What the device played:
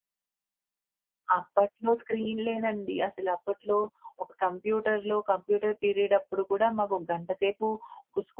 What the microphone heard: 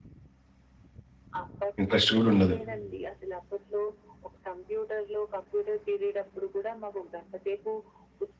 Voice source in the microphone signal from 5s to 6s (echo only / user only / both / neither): echo only